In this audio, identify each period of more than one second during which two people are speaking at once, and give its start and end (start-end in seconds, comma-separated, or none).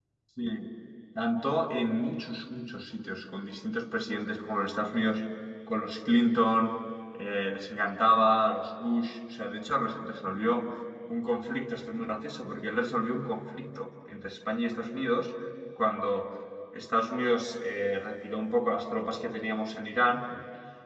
none